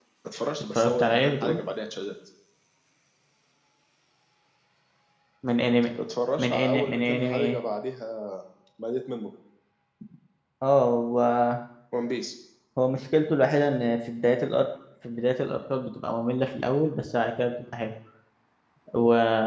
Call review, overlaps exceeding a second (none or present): present